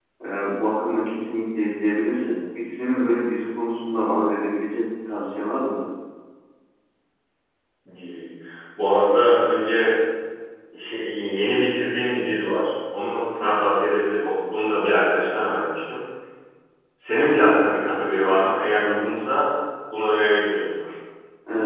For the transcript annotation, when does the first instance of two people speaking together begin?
none

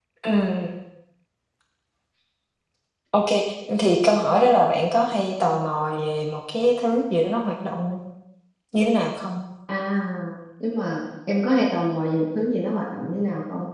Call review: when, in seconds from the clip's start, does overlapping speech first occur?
none

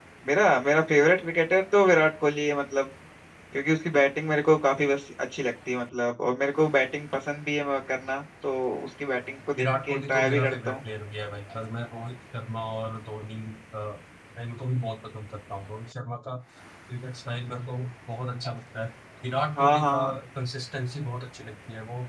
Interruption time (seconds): 9.6 s

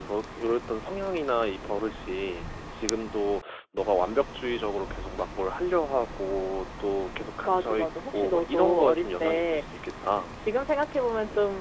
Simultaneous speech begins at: 7.4 s

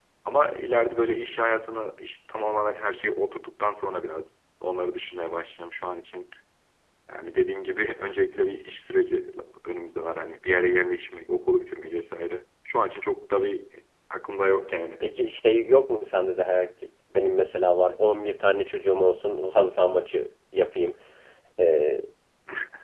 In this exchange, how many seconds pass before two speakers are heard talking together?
none

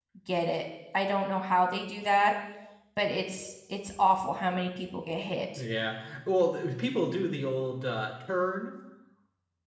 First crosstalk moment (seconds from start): none

